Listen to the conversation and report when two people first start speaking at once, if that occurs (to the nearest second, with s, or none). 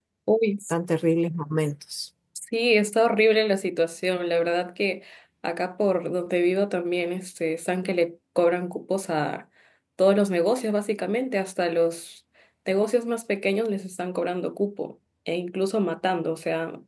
none